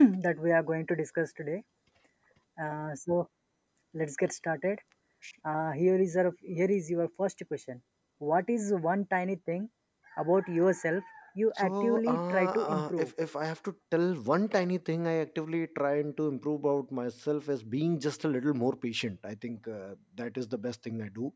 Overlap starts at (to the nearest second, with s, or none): 12 s